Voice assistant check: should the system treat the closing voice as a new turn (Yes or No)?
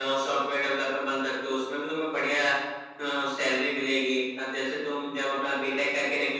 No